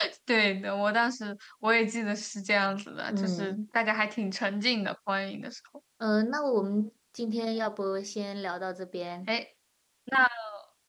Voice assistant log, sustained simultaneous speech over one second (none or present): none